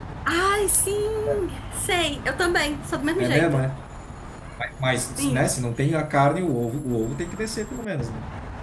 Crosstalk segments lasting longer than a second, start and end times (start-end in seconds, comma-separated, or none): none